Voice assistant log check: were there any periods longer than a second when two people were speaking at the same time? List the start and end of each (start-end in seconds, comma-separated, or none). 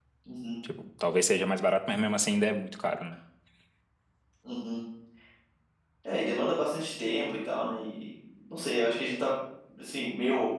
none